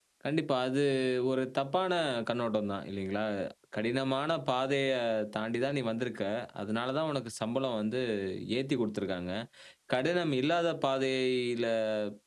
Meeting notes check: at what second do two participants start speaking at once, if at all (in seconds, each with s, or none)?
none